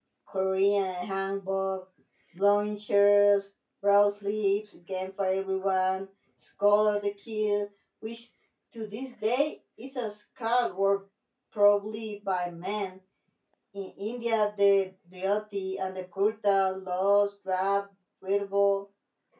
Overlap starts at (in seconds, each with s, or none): none